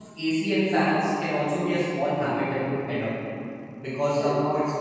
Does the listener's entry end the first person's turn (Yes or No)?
No